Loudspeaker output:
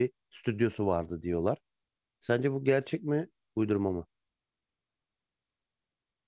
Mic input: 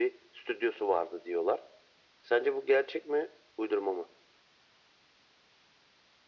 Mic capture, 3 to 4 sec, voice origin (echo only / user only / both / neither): echo only